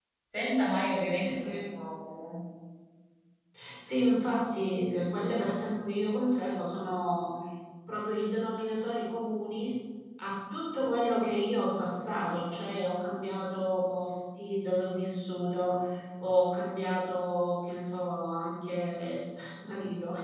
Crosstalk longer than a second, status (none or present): none